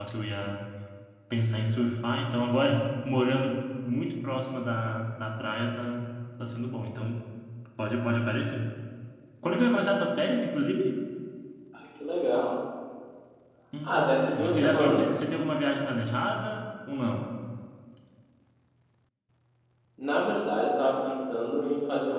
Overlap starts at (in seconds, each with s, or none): 13.8 s